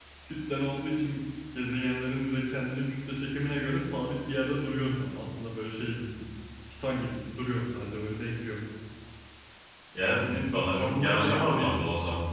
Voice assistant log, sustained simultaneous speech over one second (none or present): present